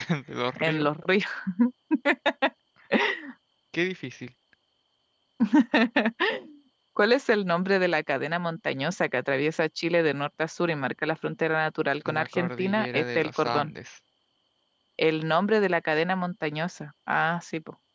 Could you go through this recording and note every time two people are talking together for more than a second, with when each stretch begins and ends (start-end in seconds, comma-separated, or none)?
12.1-13.7